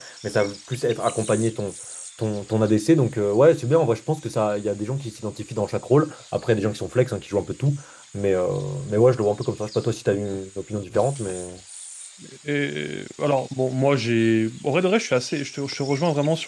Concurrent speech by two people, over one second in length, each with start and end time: none

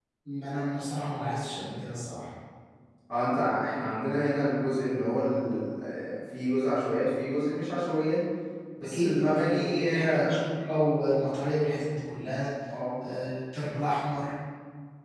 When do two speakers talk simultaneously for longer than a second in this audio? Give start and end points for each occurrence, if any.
8.8-10.4

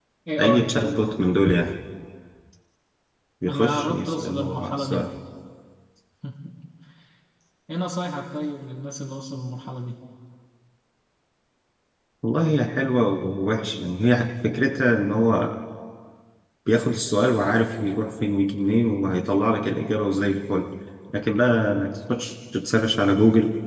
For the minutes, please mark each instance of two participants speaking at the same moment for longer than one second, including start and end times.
3.5-5.0

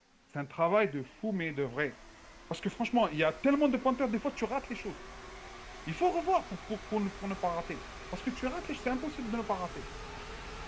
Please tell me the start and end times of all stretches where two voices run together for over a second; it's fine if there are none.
none

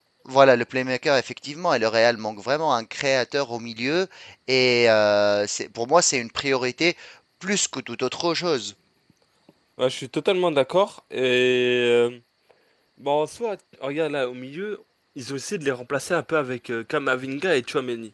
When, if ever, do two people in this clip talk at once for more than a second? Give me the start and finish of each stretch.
none

